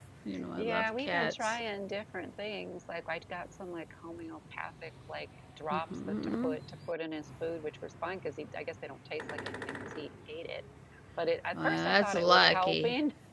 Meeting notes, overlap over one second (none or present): present